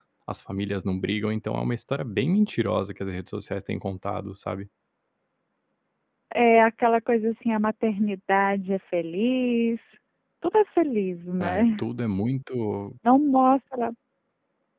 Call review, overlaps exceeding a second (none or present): none